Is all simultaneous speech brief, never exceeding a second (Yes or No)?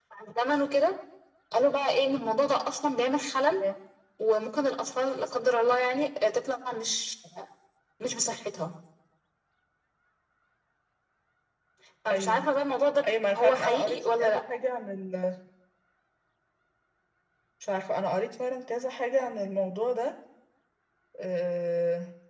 No